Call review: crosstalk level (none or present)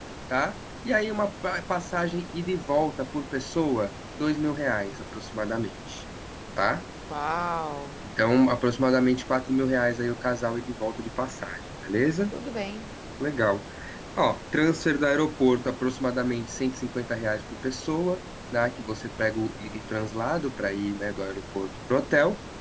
none